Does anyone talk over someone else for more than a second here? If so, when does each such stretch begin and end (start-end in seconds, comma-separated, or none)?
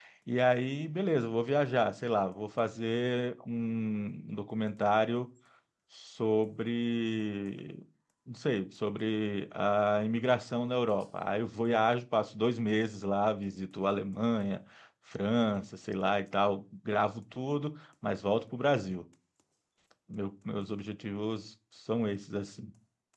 none